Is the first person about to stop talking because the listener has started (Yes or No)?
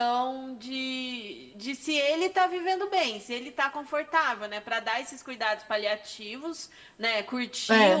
No